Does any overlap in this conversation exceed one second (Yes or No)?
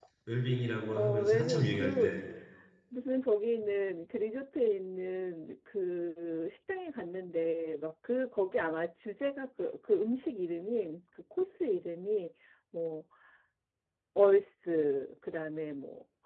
Yes